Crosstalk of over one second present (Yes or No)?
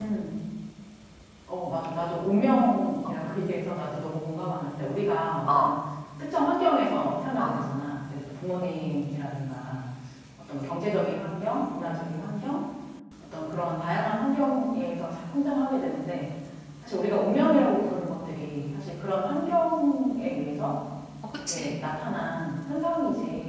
No